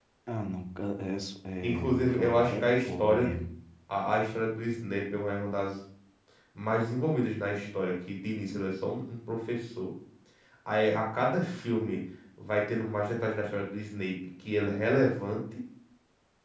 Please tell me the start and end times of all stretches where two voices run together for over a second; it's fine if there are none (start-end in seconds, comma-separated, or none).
1.6-3.3